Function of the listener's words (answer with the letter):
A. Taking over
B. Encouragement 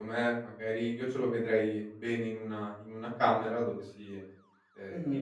B